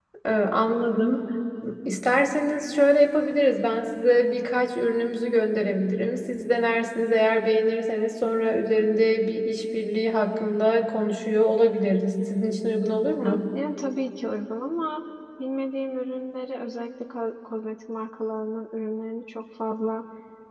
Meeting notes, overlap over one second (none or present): none